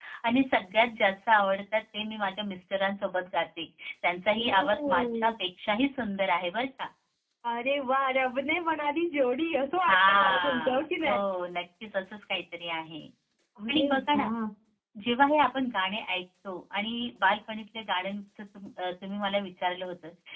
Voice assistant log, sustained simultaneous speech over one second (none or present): present